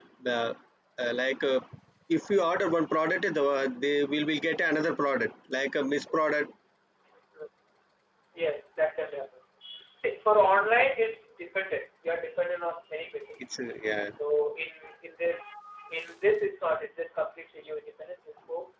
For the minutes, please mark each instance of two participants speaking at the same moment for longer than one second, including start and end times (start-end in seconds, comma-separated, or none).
none